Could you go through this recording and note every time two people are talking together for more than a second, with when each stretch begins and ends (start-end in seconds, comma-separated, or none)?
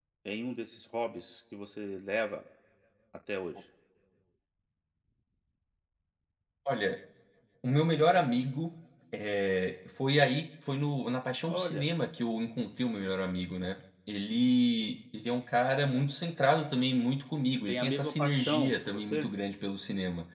17.7-19.2